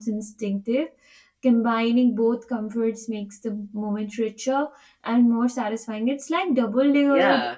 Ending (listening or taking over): taking over